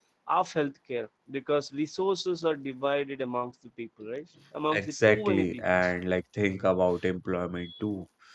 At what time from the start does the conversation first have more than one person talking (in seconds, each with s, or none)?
4.7 s